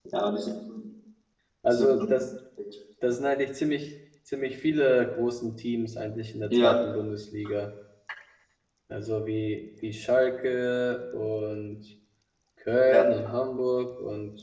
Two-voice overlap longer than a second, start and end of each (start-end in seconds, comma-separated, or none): none